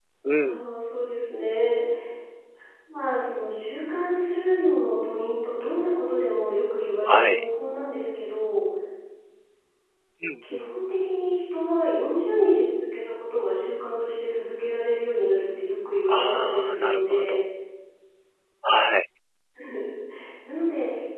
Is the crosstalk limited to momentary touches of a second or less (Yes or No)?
No